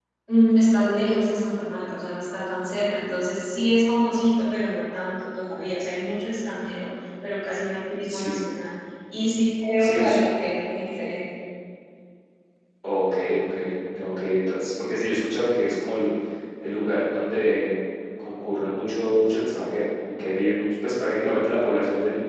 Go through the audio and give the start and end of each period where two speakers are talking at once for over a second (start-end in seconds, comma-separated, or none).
none